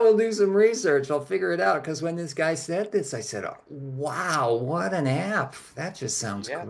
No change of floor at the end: No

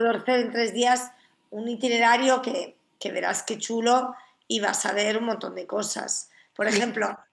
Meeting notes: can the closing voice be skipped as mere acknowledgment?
Yes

